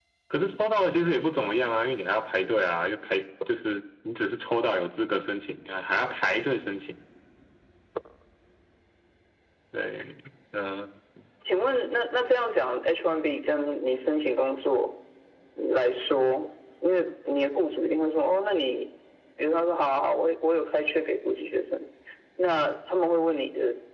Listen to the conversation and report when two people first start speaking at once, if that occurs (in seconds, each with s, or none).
none